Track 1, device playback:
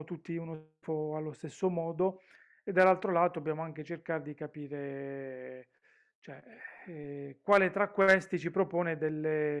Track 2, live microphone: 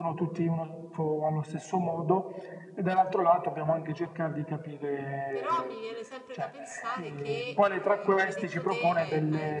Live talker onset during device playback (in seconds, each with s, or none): 5.3 s